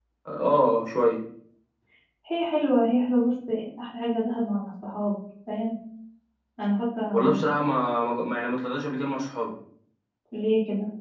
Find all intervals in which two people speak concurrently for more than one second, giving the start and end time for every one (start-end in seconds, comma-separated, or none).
none